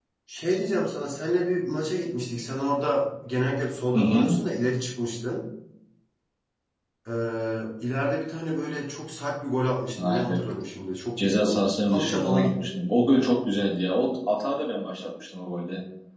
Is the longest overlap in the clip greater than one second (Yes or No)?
Yes